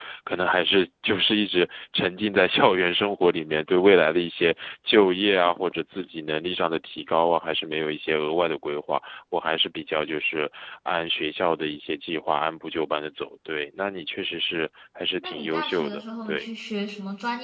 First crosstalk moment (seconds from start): 15 s

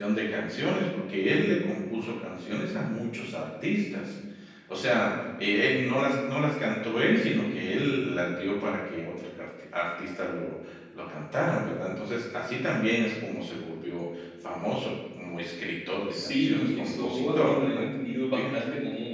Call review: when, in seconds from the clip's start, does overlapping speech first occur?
16 s

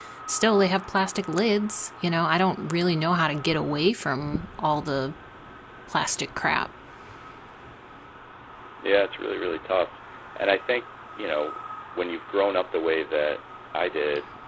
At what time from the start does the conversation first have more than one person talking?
none

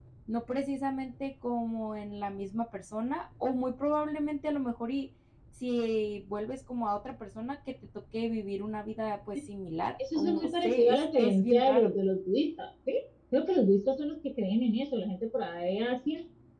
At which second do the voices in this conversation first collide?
10 s

